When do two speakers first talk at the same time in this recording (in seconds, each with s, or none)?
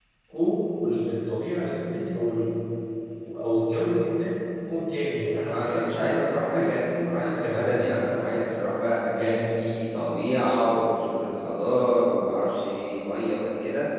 5.5 s